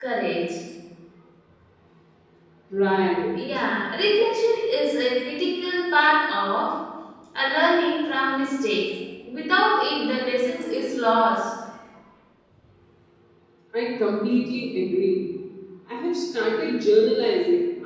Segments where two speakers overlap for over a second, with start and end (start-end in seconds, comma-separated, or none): none